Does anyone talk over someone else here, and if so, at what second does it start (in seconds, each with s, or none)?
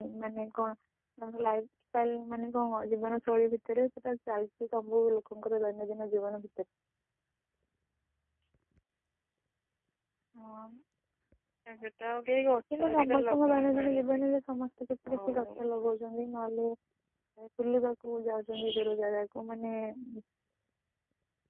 12.7 s